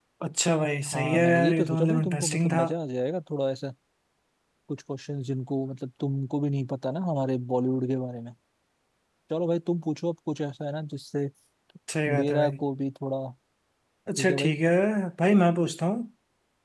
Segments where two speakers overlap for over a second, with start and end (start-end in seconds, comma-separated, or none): 0.9-2.6